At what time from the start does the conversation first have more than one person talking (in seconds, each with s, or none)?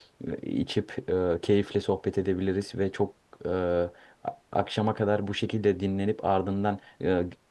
none